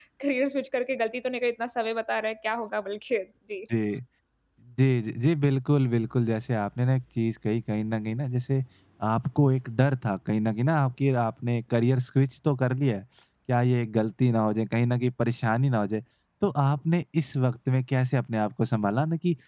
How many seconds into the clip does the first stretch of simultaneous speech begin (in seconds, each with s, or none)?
none